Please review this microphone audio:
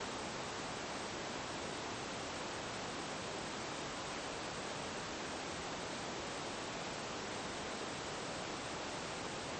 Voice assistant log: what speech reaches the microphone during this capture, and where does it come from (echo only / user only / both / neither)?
neither